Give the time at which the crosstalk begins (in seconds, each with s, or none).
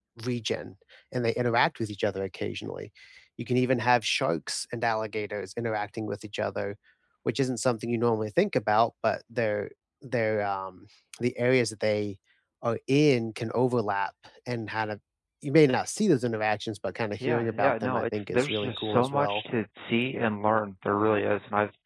17.2 s